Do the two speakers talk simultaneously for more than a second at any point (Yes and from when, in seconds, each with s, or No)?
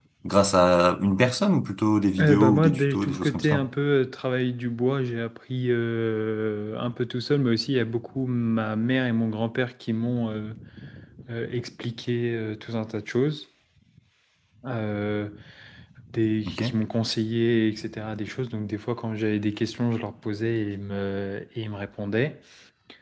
Yes, from 2.2 s